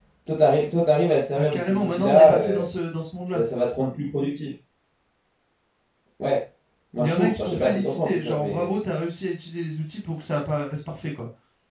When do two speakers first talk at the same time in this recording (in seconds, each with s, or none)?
1.4 s